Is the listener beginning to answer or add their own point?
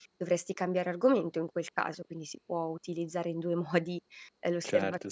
Yes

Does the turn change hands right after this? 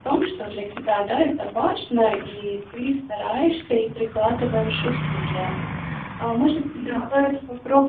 No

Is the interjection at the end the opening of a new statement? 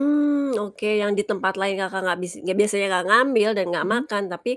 No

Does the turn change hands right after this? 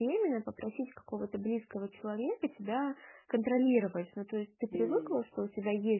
No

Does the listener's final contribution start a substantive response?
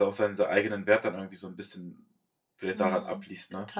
Yes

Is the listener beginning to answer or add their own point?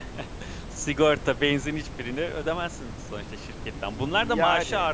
No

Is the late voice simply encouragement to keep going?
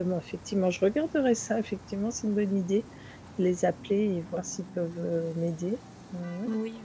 No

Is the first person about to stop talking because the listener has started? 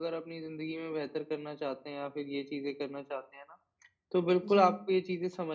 No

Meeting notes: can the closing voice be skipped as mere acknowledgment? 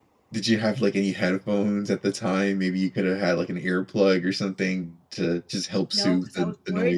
No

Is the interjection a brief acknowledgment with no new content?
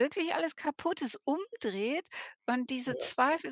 Yes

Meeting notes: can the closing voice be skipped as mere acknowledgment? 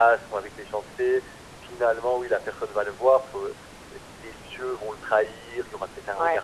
No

